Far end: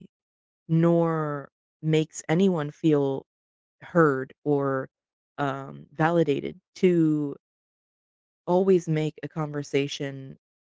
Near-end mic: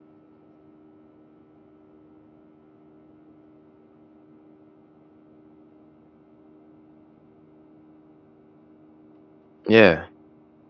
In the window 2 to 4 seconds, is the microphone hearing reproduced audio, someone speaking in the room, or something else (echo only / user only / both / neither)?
neither